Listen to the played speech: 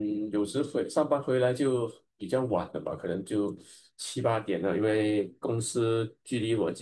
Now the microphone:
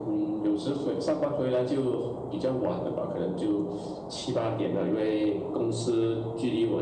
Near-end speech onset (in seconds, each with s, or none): none